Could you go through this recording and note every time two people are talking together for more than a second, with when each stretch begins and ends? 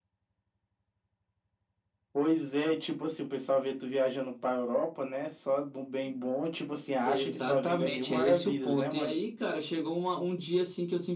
7.0-9.1

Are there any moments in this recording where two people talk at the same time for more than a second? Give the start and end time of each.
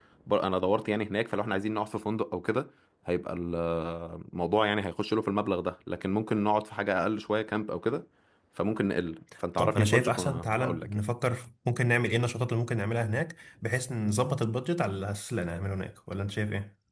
9.6-11.0

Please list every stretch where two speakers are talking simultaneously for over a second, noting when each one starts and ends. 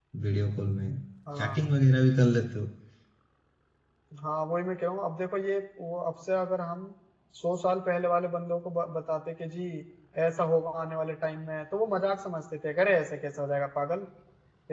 none

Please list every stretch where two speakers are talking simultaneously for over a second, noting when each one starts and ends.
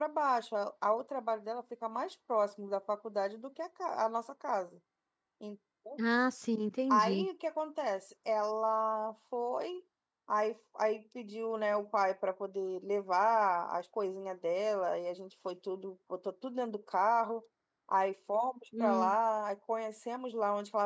none

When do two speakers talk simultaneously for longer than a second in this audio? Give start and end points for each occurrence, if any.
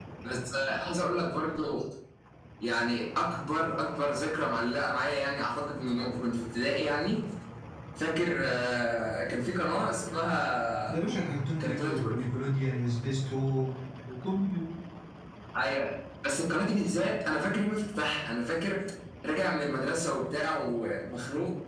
none

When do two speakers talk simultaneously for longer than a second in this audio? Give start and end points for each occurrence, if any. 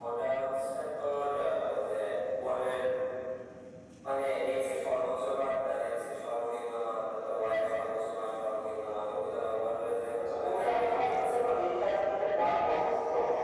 10.2-11.4

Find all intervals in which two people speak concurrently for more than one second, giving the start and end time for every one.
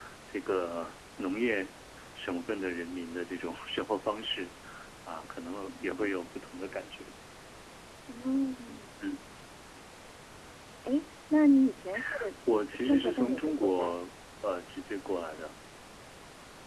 12.7-13.9

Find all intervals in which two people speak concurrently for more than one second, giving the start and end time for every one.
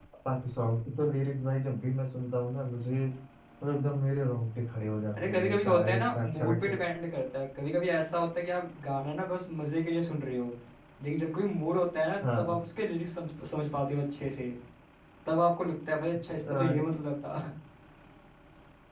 5.2-6.8

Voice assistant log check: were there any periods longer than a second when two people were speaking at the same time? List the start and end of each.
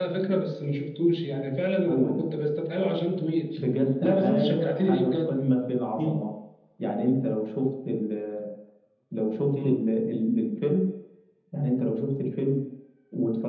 4.0-5.3

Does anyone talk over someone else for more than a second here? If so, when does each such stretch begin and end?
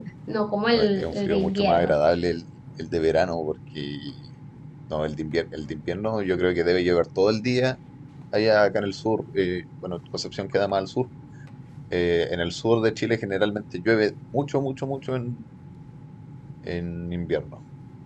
0.7-1.9

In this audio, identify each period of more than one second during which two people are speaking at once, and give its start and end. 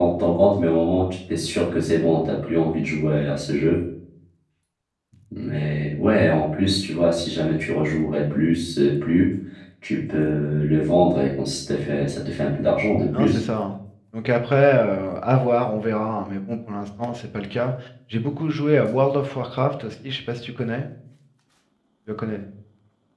none

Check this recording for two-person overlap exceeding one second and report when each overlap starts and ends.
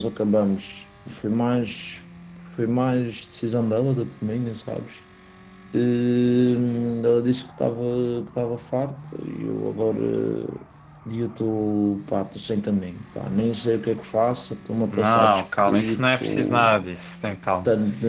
14.9-16.7

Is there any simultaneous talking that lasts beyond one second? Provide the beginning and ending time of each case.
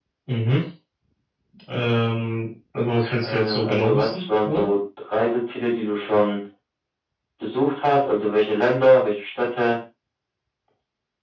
3.2-4.6

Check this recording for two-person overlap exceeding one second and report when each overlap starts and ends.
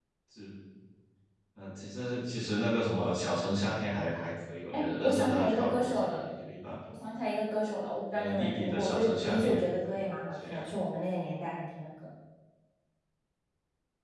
4.7-6.2, 8.1-10.7

